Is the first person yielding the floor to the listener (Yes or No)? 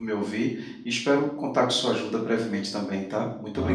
Yes